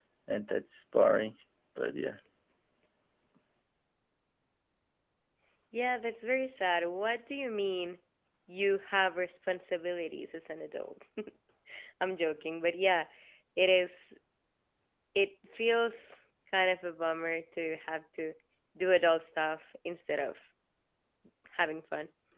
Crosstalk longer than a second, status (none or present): none